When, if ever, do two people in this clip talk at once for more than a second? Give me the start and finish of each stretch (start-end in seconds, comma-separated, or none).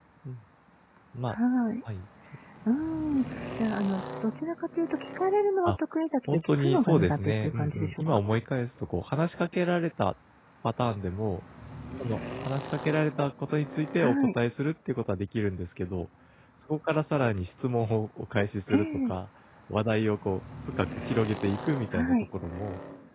6.3-8.2